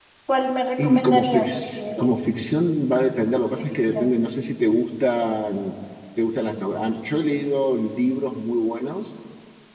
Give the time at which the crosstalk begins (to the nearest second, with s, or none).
1 s